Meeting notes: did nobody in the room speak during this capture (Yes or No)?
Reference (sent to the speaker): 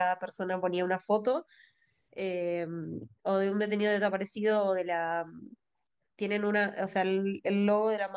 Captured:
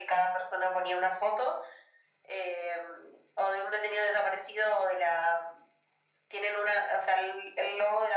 Yes